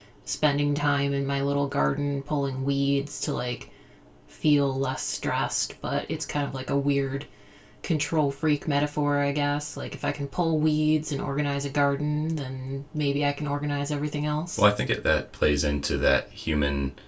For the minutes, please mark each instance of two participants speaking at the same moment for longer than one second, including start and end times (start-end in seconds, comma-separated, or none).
none